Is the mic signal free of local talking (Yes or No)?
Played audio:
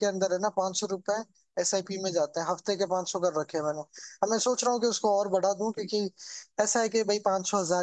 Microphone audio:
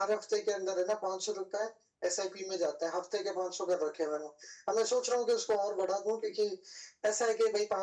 Yes